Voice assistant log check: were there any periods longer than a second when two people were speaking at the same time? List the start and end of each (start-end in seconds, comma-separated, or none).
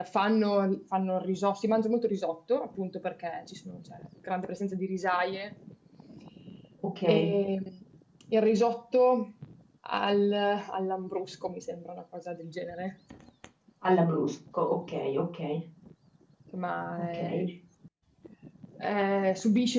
none